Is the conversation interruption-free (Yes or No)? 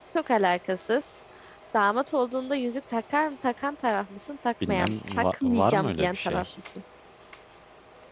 No